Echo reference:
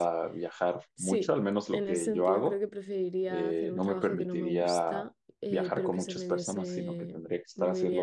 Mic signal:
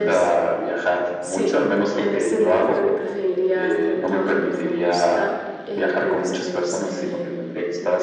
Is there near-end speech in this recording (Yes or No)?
Yes